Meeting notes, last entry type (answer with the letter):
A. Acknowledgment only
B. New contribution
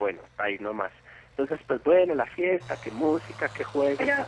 B